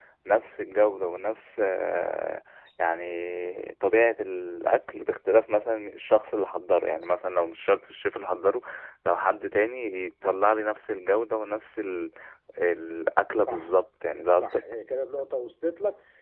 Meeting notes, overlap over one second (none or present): none